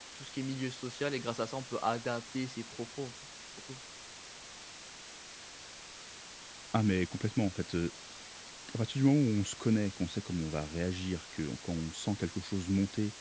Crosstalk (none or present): none